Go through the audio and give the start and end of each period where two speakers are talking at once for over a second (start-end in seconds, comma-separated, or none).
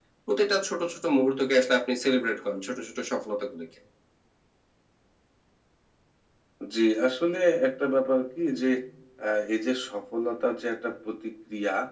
none